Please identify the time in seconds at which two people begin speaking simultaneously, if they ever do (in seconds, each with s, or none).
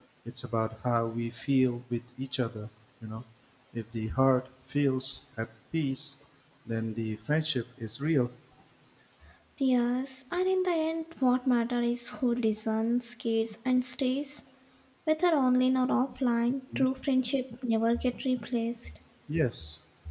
none